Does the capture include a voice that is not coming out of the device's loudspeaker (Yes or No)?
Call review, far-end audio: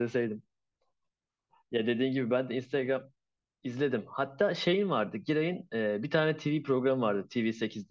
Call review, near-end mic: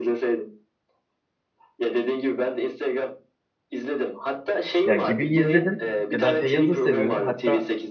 Yes